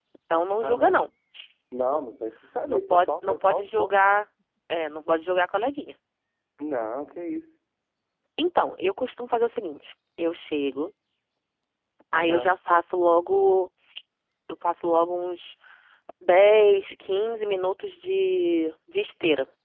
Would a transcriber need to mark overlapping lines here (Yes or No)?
Yes